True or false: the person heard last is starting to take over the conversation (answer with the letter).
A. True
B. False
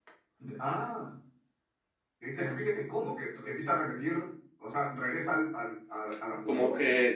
A